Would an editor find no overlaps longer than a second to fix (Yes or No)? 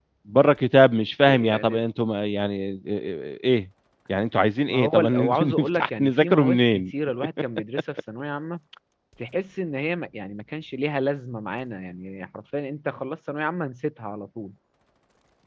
No